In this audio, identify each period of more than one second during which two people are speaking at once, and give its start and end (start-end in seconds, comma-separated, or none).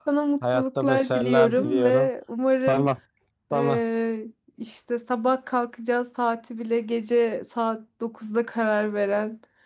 0.5-2.1